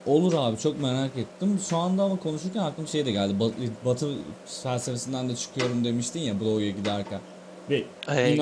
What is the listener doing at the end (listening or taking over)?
taking over